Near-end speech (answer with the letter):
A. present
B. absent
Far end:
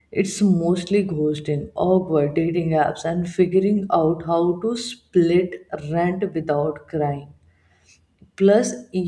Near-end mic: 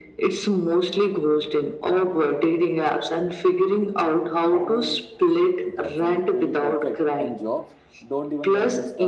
A